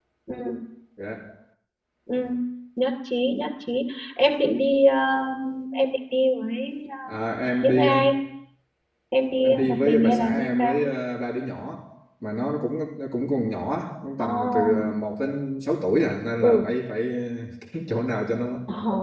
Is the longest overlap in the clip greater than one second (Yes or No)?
Yes